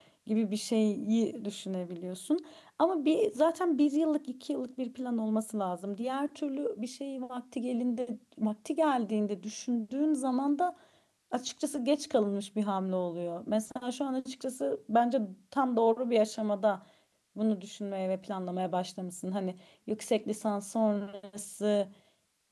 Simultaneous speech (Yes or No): No